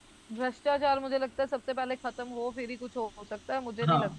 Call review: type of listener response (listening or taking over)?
taking over